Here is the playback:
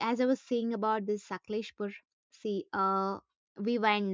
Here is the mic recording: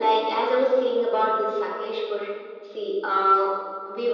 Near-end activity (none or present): none